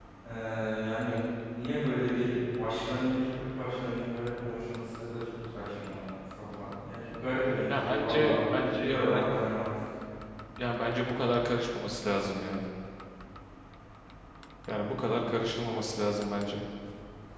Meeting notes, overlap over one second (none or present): present